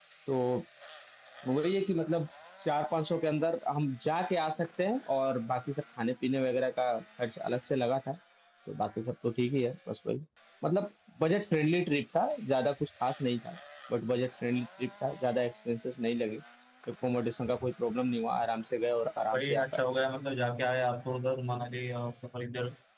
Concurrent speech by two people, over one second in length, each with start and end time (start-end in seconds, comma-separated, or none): none